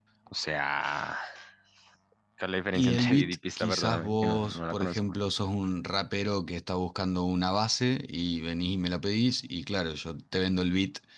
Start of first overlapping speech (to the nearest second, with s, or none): 3 s